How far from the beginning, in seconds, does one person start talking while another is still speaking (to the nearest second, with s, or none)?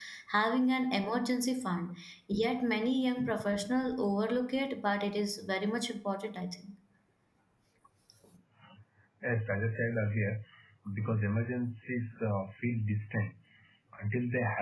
none